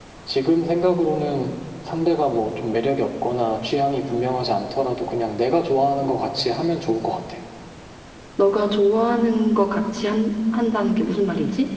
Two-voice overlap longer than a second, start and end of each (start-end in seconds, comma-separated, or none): none